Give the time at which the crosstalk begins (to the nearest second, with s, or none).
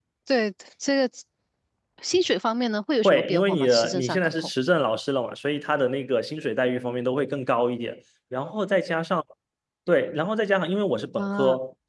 3 s